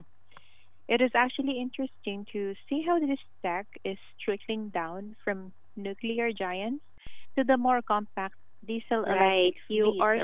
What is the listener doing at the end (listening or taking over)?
taking over